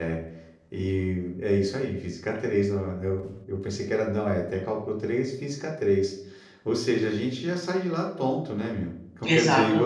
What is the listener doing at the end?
listening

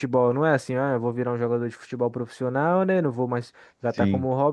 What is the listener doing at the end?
listening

